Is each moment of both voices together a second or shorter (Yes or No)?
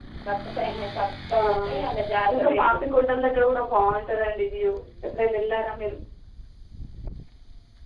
Yes